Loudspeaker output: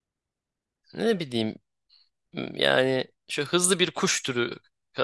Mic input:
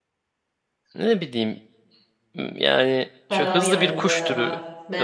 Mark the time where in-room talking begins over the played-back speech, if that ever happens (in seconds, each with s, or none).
3.3 s